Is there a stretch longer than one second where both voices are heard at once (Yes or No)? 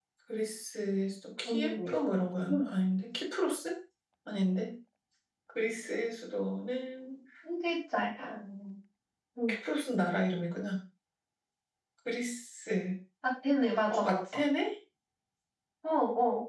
No